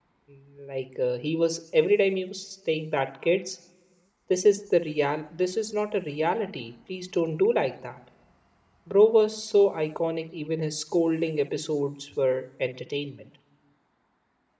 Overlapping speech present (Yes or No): No